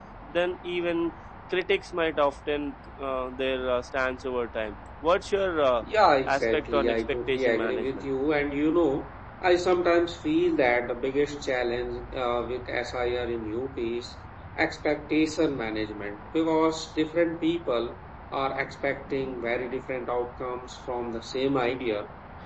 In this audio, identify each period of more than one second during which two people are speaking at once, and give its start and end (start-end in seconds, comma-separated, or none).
6.3-8.1